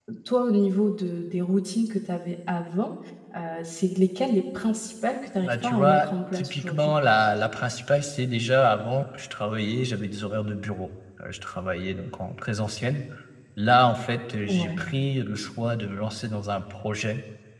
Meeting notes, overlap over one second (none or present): present